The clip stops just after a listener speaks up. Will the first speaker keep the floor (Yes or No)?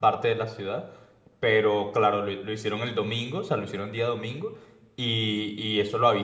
Yes